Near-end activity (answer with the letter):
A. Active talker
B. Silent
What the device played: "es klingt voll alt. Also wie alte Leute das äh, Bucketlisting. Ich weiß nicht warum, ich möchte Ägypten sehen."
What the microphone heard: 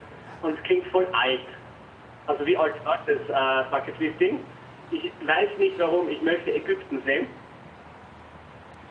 B